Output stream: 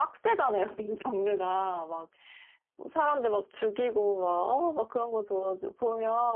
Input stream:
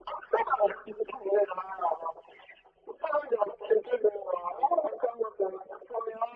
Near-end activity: none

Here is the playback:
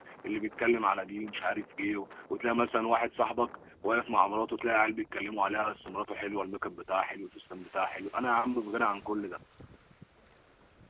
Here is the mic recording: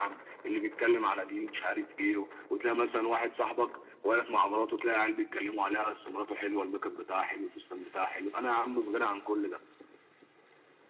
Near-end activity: none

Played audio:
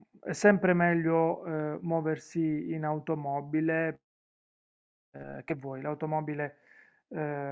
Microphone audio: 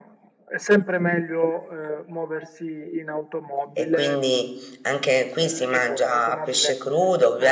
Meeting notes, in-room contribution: present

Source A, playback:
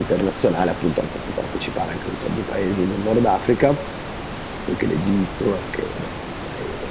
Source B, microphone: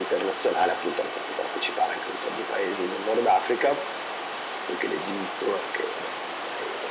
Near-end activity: none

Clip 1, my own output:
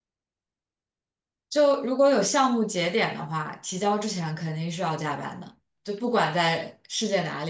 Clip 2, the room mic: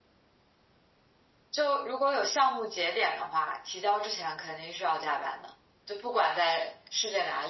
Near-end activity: none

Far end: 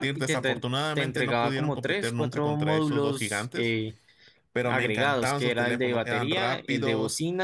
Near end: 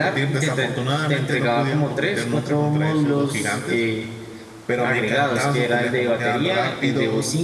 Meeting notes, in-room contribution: none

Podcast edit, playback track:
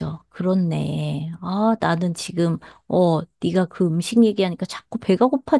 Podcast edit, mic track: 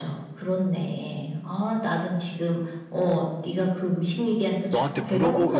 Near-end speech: present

